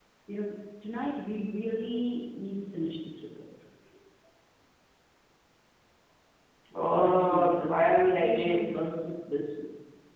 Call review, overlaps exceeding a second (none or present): present